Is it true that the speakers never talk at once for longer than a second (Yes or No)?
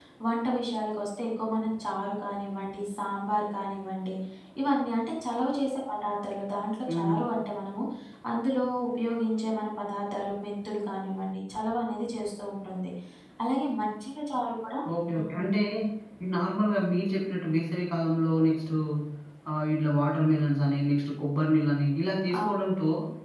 Yes